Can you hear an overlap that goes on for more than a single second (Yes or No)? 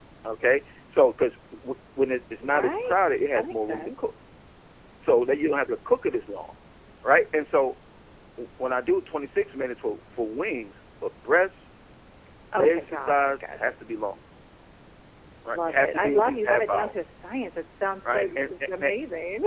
Yes